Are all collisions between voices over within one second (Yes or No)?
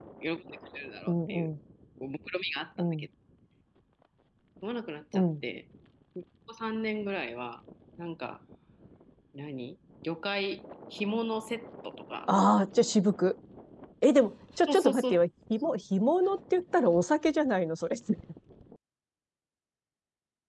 Yes